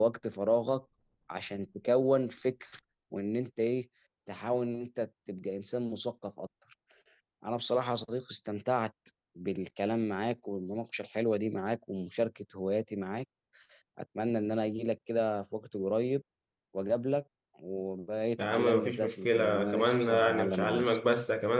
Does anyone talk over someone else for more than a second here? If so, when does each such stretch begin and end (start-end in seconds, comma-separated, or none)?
18.4-21.0